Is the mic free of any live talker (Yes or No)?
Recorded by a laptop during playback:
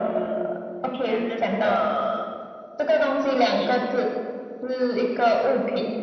Yes